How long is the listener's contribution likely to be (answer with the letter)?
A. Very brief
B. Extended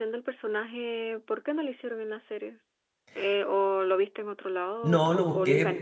B